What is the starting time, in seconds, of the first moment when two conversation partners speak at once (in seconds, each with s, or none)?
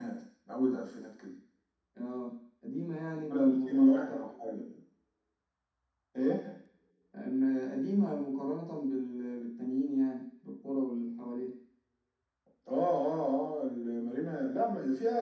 3.3 s